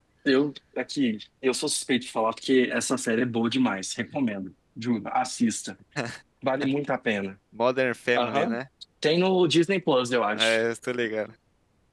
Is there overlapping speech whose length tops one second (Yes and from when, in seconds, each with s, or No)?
No